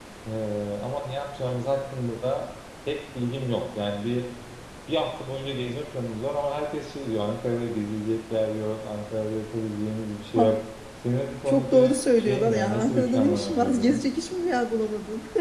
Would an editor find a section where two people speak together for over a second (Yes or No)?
Yes